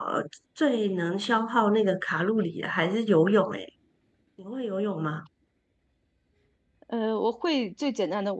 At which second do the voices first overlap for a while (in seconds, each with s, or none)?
none